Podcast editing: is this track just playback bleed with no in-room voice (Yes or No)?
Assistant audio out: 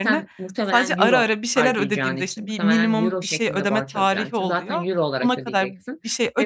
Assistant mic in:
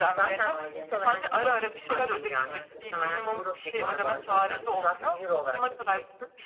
No